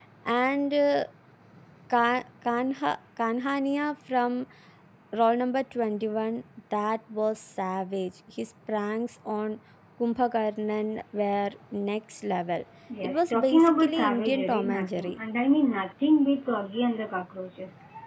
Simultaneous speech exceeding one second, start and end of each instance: 13.0-15.1

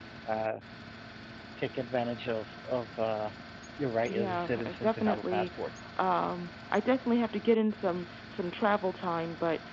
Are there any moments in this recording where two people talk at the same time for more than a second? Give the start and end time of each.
4.1-5.5

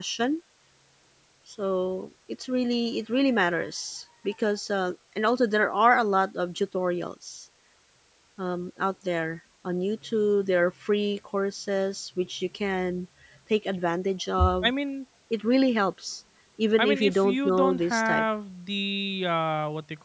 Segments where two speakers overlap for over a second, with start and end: 16.8-18.2

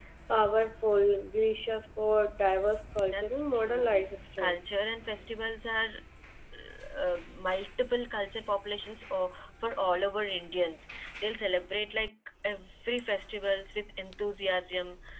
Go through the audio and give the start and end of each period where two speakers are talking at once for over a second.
3.0-4.6

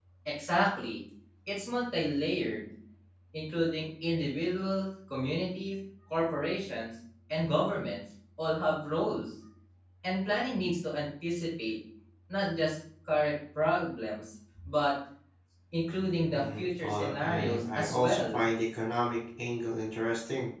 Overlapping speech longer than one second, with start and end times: 16.3-18.4

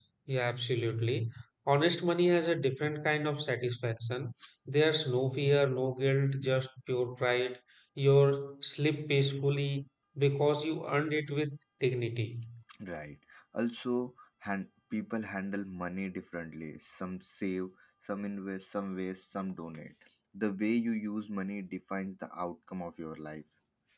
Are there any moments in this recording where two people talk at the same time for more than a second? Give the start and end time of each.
none

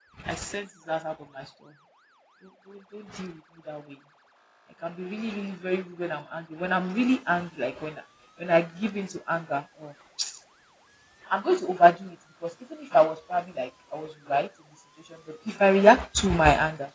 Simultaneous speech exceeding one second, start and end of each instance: none

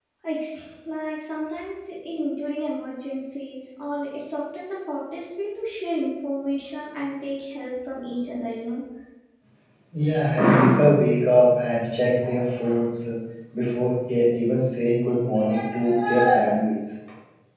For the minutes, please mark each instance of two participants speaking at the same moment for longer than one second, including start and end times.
none

